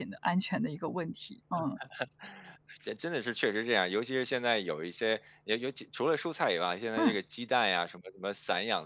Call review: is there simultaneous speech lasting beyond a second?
No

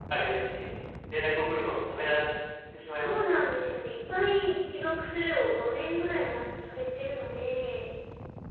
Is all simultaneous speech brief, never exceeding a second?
Yes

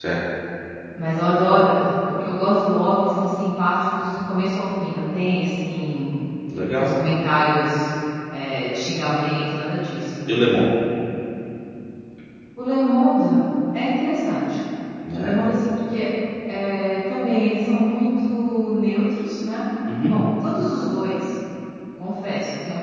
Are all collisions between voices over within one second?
Yes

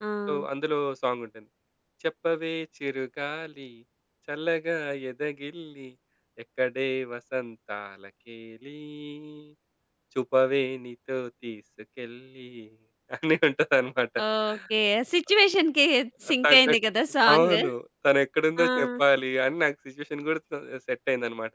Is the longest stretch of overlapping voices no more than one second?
Yes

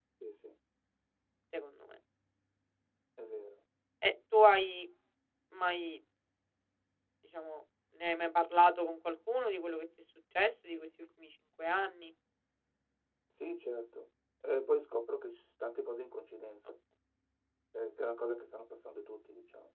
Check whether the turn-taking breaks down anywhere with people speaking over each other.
No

